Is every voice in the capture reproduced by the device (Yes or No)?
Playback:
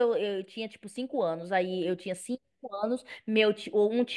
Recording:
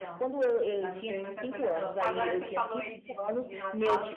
No